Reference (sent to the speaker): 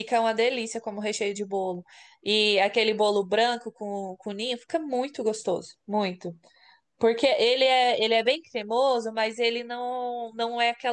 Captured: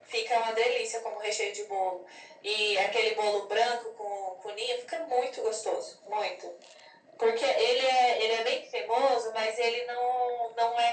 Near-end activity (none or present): none